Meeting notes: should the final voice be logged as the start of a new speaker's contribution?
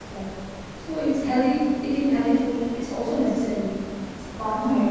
Yes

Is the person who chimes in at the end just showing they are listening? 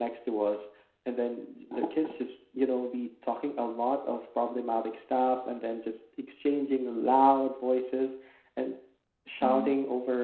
Yes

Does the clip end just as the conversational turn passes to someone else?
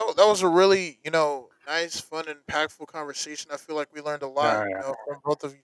No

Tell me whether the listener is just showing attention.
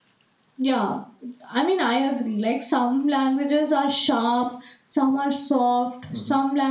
Yes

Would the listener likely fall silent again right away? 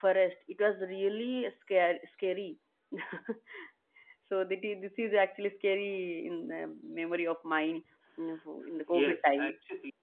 No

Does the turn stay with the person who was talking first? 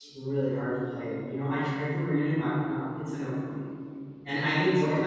No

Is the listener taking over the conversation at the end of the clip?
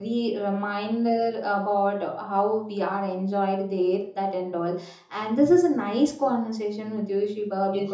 Yes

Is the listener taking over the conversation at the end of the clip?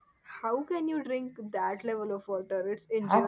Yes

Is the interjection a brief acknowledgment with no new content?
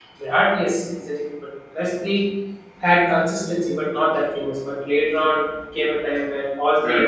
No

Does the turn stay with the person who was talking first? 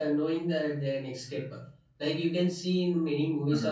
Yes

